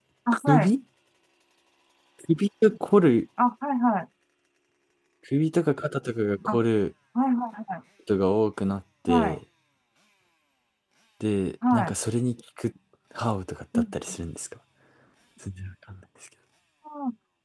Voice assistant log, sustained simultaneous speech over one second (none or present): none